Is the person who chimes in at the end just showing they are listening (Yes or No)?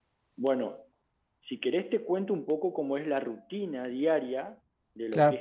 No